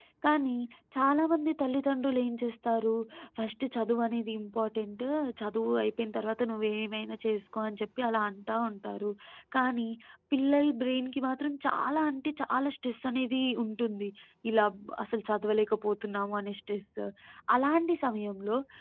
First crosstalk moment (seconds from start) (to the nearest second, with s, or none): none